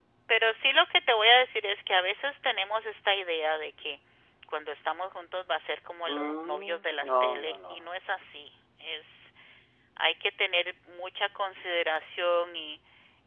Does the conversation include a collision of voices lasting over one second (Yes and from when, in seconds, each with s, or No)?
Yes, from 6.0 s